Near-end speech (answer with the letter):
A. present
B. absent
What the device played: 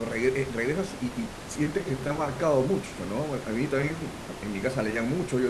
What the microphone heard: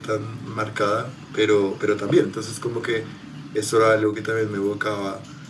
A